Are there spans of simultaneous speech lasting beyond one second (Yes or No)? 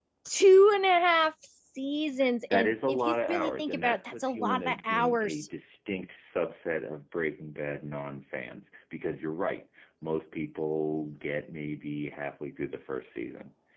Yes